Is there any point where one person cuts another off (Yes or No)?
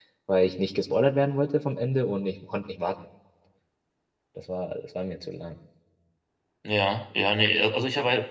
No